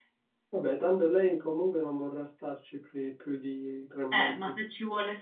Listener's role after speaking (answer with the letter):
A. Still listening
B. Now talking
B